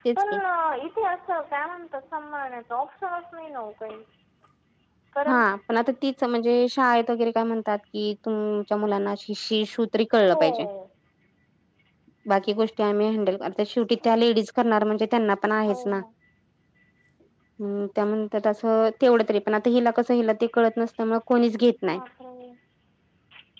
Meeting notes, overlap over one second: none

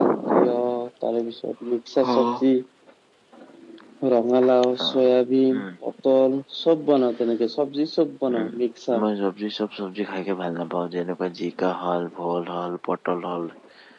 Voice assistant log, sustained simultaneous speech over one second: none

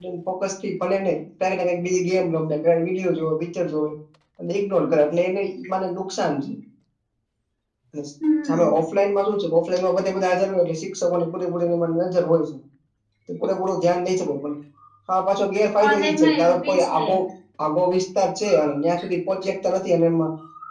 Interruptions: present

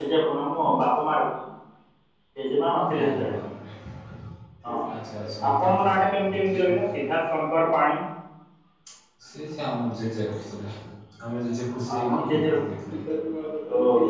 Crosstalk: present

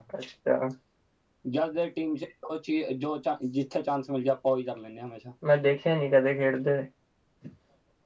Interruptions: none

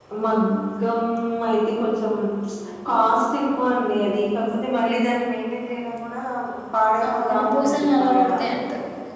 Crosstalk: present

